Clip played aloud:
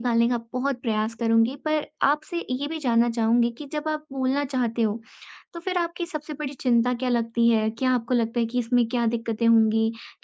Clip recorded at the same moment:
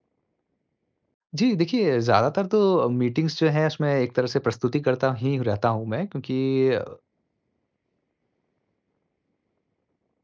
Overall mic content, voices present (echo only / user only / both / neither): user only